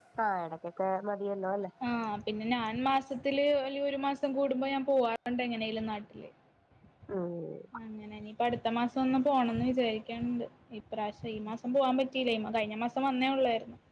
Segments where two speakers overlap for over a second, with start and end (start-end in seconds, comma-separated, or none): none